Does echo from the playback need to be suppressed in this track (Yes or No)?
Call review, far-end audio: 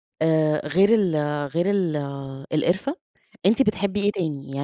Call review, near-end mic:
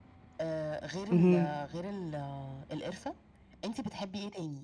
Yes